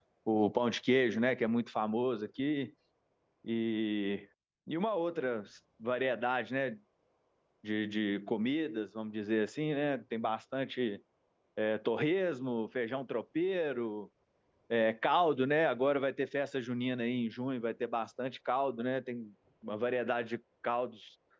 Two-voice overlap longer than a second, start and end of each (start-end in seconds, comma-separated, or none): none